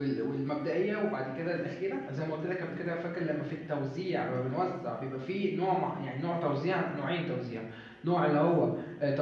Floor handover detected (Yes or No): No